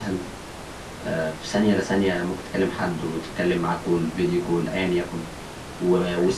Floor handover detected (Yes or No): No